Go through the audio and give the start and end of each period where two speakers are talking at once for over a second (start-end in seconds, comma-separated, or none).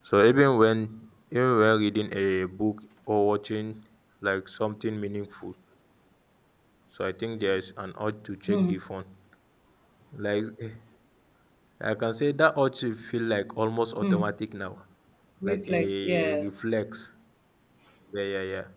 15.4-16.7